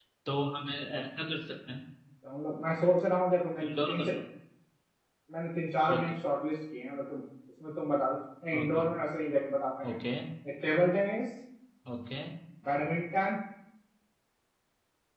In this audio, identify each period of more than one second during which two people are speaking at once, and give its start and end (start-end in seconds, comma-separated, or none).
none